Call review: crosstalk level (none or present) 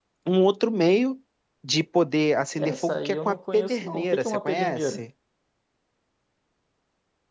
present